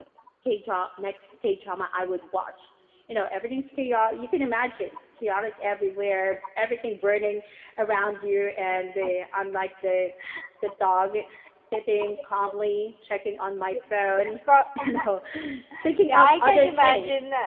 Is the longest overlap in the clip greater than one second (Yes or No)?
Yes